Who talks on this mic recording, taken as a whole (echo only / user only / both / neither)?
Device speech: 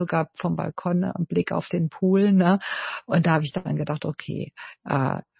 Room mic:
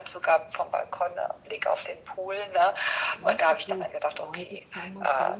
both